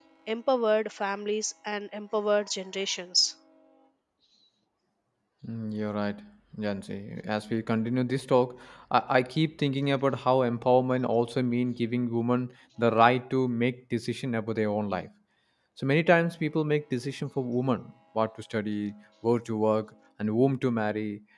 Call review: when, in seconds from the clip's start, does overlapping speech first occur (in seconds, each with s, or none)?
none